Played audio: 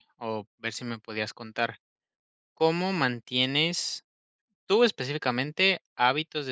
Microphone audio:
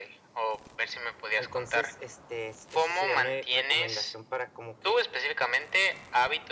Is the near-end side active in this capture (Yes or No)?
Yes